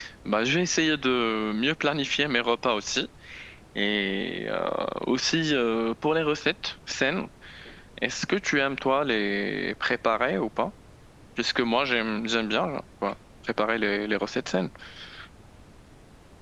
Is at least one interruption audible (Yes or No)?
No